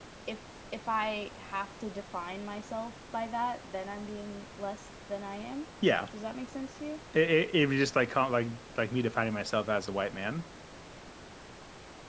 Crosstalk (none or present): none